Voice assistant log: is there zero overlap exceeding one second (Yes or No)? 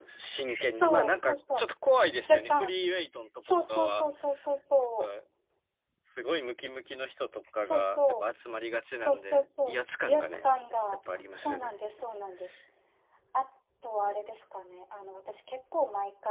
No